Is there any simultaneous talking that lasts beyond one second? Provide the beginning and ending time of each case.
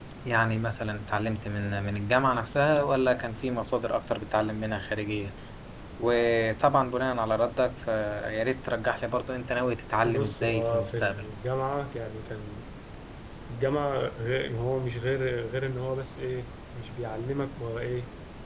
10.1-11.3

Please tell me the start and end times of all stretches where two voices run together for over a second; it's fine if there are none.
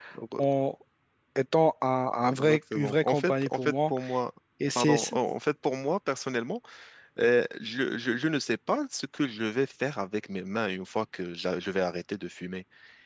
2.3-3.9

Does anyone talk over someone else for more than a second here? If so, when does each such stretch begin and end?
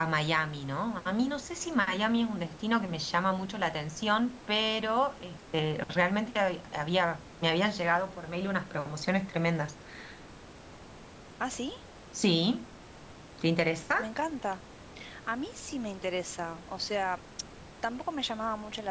none

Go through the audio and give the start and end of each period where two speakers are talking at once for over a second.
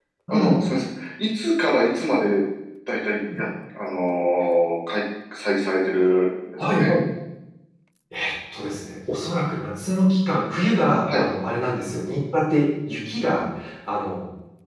none

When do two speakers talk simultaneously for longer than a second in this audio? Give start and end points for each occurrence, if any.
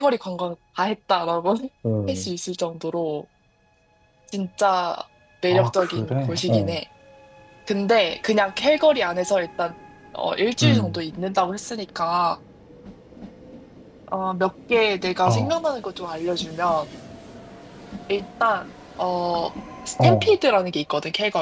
5.5-6.8

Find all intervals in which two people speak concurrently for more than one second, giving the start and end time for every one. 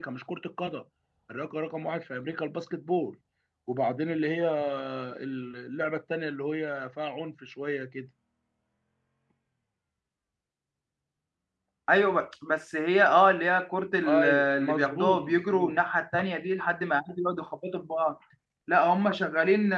14.2-15.8

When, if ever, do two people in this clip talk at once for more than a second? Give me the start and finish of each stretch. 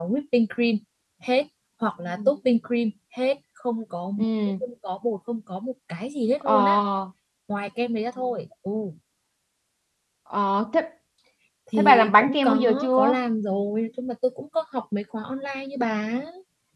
11.8-13.2

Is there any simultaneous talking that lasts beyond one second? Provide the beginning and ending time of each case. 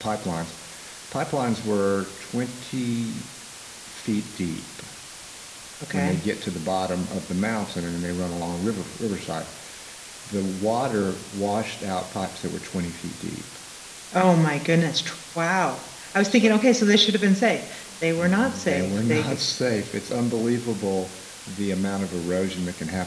18.2-19.4

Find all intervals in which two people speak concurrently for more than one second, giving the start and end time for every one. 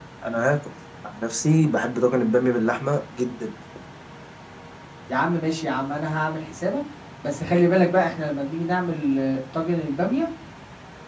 none

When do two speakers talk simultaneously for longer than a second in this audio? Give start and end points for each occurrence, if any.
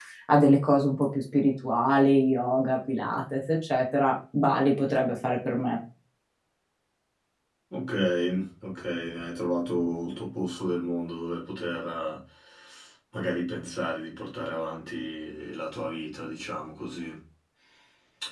none

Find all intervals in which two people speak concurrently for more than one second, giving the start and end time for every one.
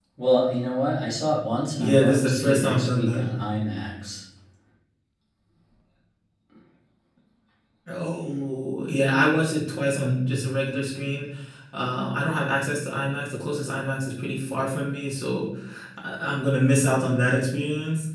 1.8-3.2

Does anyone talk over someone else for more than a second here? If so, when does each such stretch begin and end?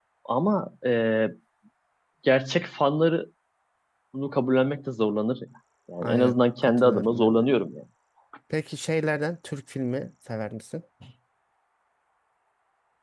6.0-7.5

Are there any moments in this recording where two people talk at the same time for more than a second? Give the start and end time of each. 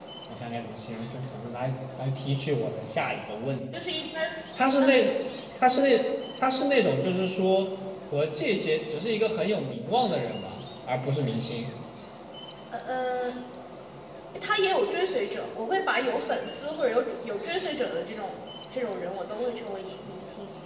none

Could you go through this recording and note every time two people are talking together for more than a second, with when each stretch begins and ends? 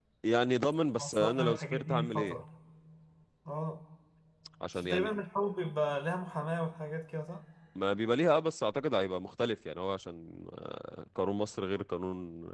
1.0-2.4

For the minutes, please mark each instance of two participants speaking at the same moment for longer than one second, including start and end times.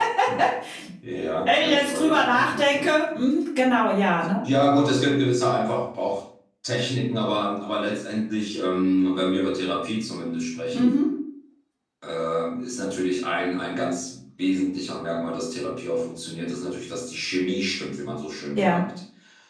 1.4-3.0

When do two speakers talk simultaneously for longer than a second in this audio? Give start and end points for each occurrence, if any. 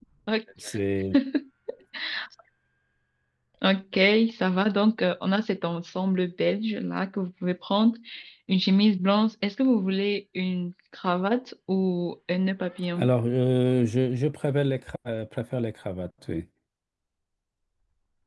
none

